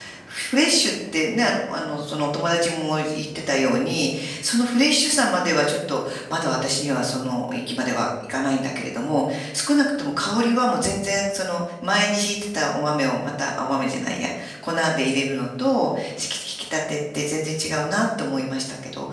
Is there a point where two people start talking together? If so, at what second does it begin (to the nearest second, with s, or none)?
none